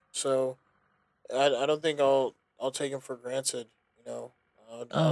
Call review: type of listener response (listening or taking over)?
taking over